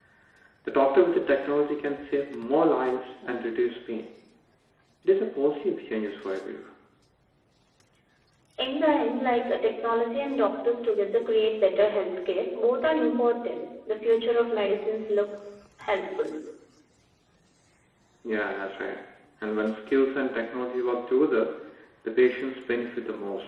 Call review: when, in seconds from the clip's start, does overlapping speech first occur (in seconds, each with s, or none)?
none